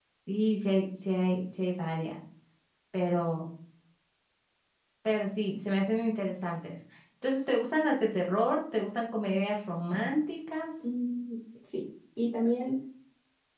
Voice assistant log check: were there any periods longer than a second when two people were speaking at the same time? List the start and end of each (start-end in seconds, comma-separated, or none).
none